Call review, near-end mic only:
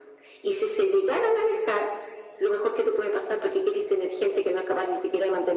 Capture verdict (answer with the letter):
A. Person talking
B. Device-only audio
B